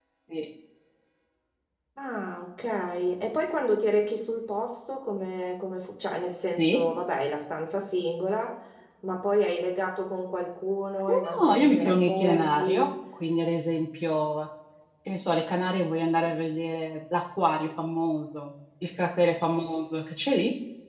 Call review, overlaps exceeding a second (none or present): present